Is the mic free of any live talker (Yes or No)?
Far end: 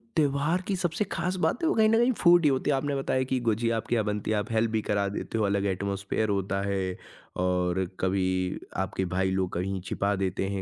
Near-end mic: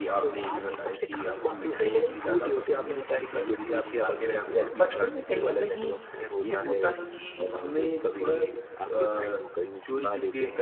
No